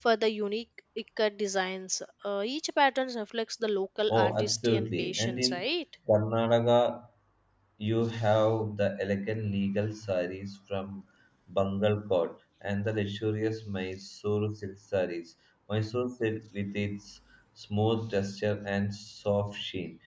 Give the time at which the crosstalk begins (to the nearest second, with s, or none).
4 s